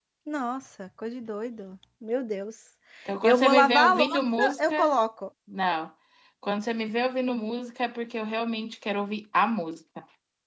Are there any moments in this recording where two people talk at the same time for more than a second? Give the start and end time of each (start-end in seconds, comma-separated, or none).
3.2-4.8